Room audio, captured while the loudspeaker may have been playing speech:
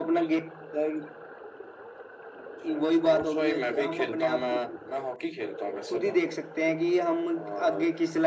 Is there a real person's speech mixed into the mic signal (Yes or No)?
No